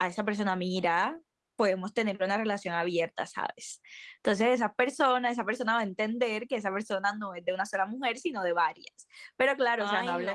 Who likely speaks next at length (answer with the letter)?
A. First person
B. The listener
A